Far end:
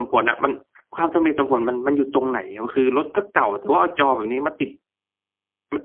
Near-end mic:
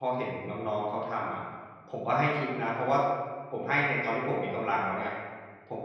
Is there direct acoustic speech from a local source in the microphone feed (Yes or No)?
Yes